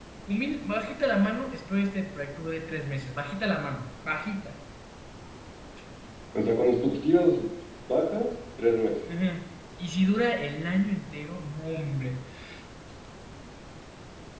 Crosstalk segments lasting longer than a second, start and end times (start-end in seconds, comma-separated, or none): none